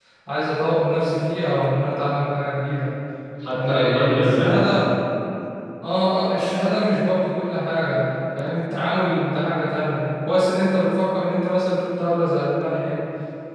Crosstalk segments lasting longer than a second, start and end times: 3.5-4.7

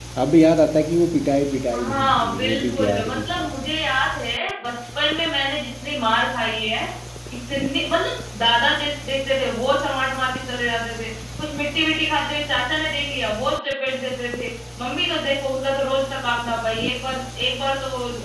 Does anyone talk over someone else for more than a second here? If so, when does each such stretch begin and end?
1.8-3.5

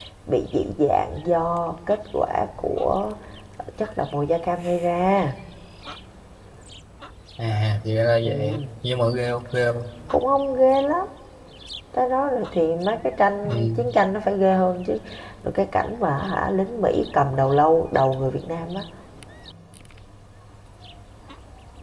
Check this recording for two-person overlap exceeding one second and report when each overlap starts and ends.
none

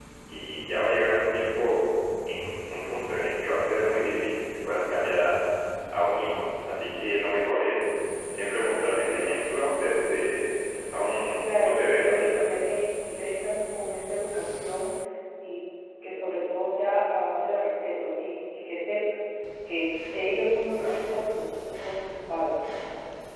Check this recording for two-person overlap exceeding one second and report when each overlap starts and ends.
11.4-12.6

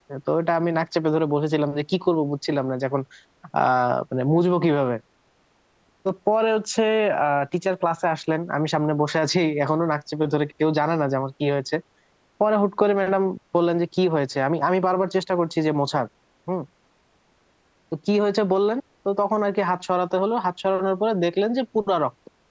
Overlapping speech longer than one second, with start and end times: none

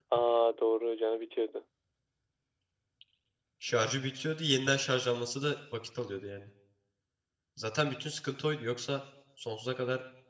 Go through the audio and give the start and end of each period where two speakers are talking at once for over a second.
none

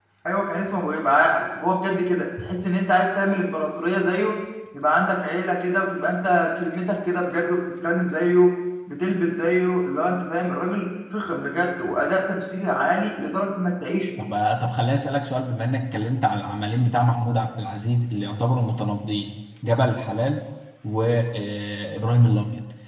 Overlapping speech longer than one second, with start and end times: none

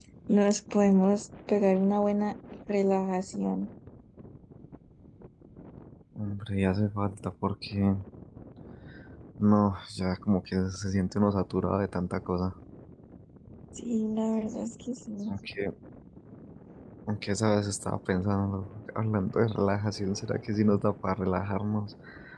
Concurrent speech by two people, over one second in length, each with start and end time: none

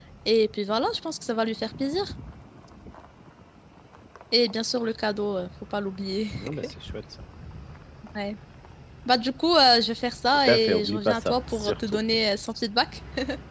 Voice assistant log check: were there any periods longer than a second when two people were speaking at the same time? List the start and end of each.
10.4-12.0

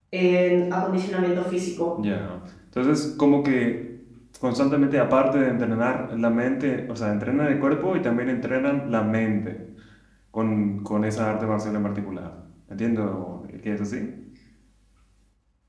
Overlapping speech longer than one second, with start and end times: none

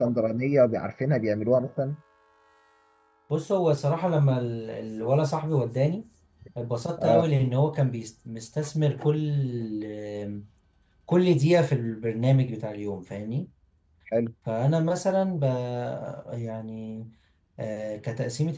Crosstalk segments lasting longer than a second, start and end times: none

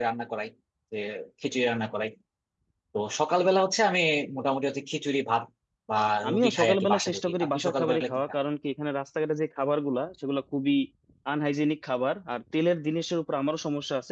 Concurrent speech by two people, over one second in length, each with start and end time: 6.3-8.2

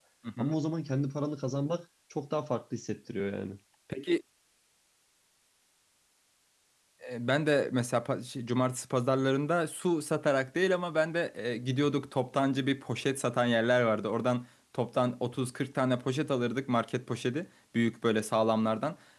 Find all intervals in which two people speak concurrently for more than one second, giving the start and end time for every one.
none

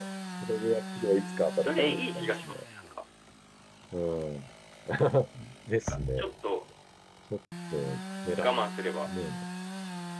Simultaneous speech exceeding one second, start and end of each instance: 1.1-2.6

